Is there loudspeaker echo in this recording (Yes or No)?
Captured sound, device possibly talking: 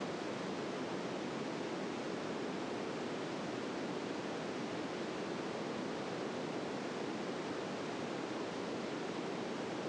No